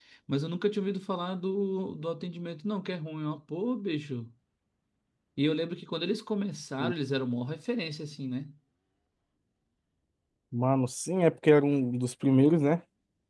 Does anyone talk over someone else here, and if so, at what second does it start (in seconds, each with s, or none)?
none